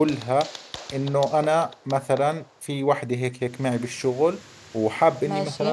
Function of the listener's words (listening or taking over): listening